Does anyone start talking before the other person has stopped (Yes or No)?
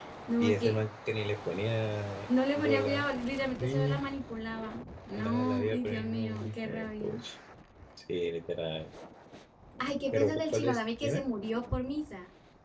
Yes